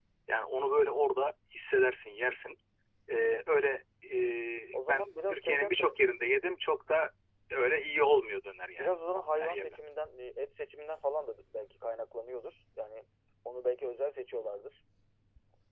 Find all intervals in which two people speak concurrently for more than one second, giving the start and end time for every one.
4.7-5.9

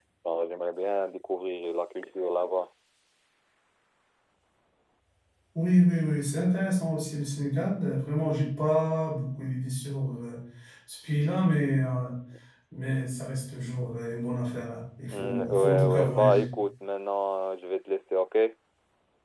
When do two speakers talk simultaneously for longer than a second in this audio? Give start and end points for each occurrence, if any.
15.1-16.5

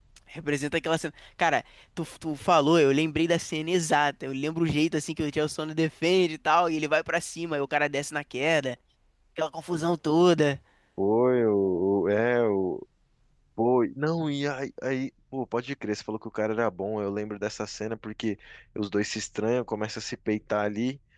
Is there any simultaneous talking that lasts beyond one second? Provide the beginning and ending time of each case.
none

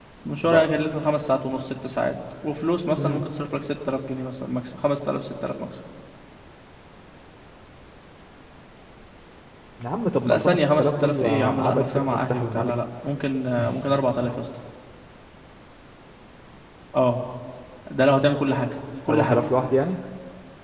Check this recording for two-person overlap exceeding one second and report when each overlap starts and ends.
10.2-12.7

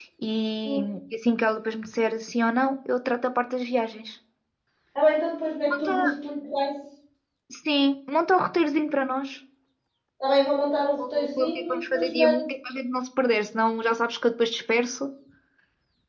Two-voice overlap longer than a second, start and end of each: 11.0-12.5

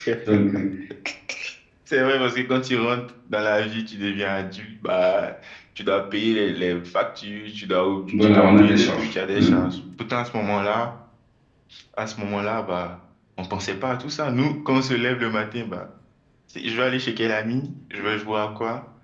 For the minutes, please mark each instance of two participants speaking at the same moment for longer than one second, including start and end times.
8.2-9.5

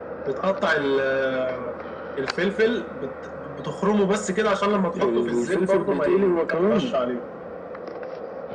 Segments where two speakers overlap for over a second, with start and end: 4.9-6.9

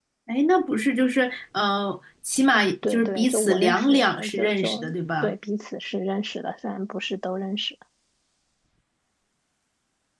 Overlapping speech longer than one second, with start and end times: 2.5-4.8

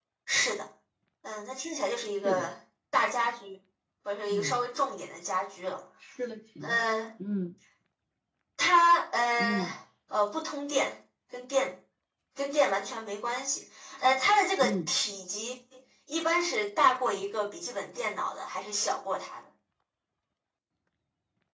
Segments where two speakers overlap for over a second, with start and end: none

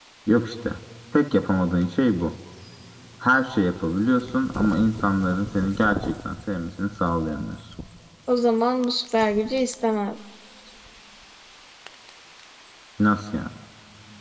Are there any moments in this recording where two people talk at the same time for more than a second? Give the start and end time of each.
none

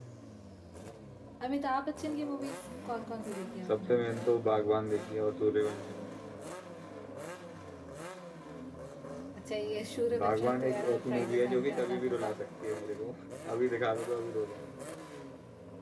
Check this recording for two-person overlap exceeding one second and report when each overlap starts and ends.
10.2-12.3

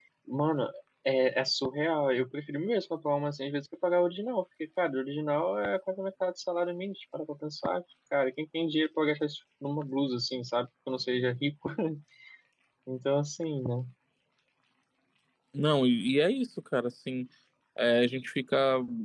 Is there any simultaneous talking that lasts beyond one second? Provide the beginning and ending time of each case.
none

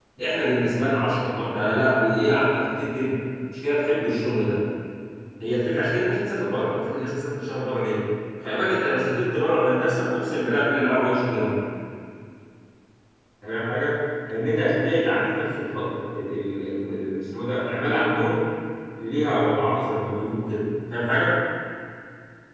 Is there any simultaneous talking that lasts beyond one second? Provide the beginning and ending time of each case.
none

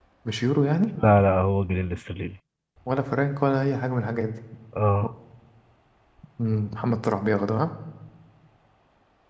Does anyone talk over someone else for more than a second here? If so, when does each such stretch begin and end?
none

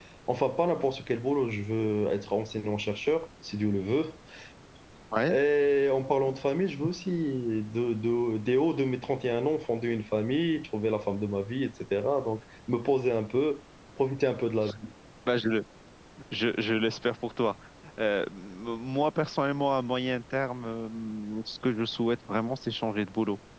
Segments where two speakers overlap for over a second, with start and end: none

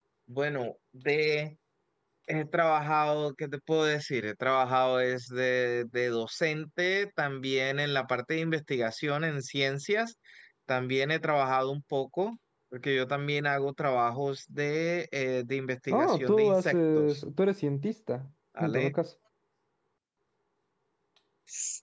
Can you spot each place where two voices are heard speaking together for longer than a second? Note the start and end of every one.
15.9-17.2

